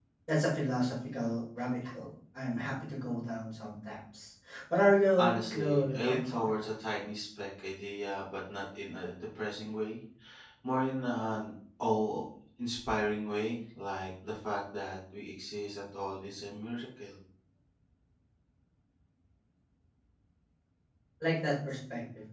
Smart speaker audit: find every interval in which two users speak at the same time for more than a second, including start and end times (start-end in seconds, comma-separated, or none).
5.2-6.7